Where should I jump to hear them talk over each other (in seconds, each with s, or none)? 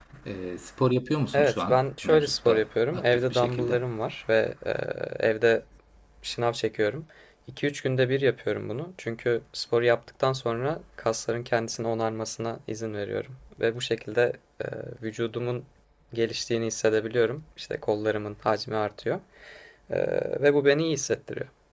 1.3 s